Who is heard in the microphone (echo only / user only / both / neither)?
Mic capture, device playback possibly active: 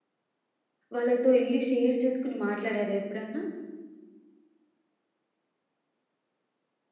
user only